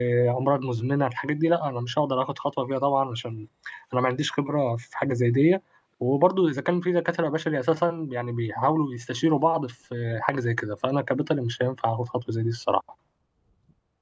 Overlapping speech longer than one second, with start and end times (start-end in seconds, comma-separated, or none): none